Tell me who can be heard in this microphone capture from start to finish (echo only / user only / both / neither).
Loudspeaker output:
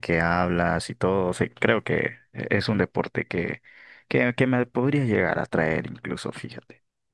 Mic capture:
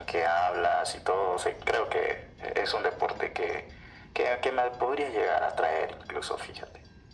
echo only